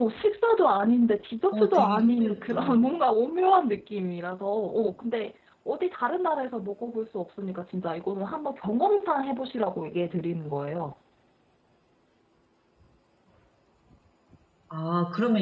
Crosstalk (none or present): present